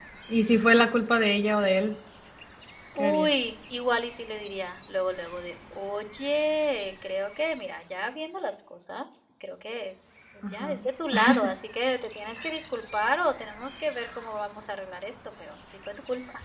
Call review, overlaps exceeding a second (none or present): none